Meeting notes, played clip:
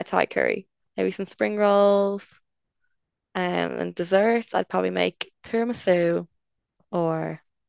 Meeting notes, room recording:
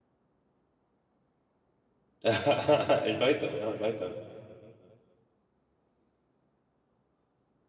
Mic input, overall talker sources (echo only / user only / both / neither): user only